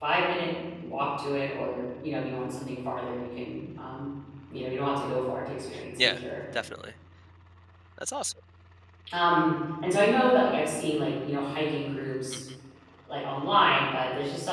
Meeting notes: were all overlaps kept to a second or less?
Yes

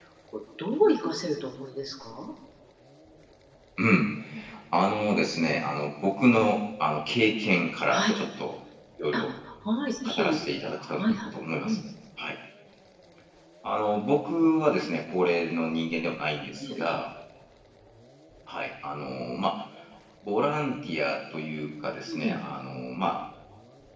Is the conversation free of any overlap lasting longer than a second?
Yes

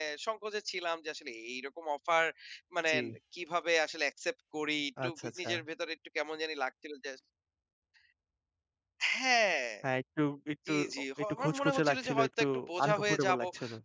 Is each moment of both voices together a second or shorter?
No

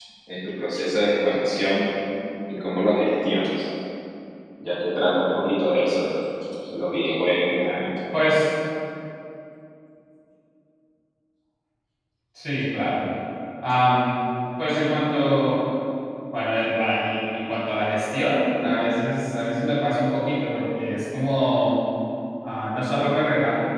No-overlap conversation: Yes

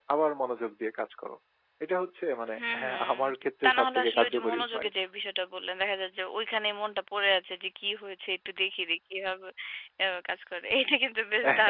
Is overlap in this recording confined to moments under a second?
No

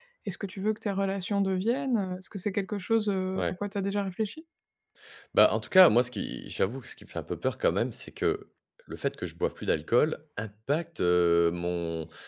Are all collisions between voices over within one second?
Yes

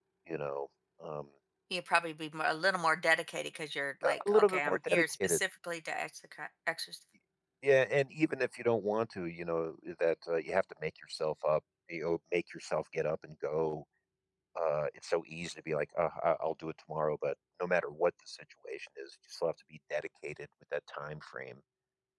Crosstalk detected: Yes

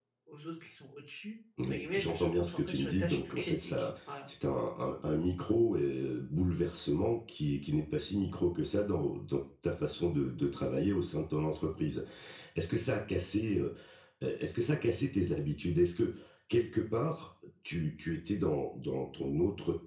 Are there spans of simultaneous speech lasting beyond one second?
Yes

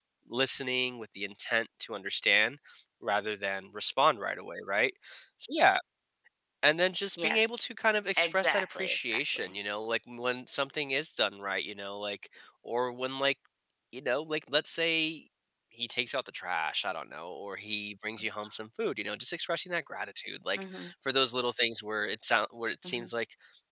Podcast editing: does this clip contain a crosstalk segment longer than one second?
Yes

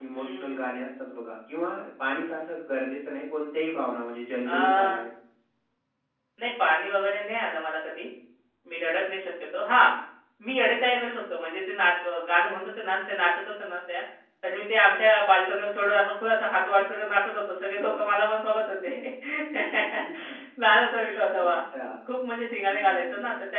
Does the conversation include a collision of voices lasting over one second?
No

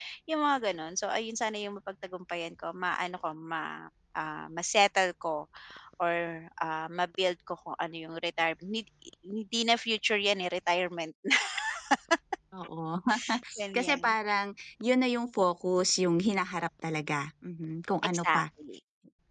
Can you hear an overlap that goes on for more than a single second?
No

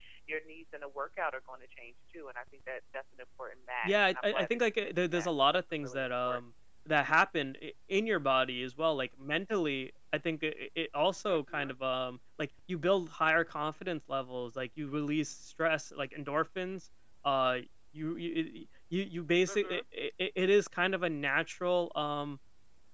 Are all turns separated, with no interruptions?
No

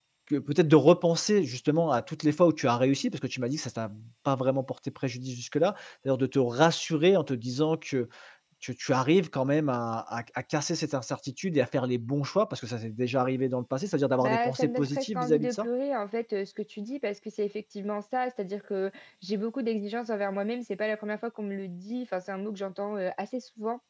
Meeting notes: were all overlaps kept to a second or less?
No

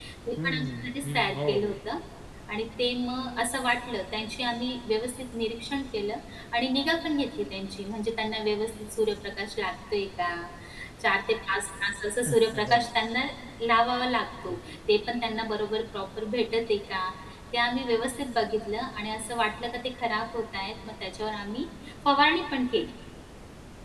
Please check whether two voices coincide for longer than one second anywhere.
Yes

